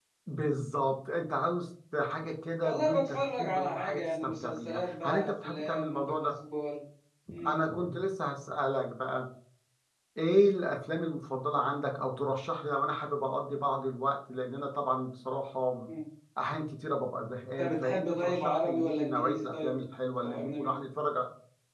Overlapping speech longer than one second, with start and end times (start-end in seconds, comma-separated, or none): 2.6-6.3, 17.6-19.8